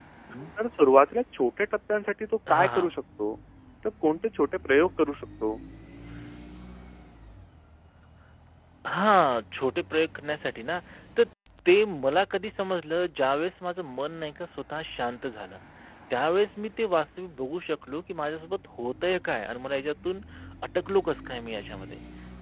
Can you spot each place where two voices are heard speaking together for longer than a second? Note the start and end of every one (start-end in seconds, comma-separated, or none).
none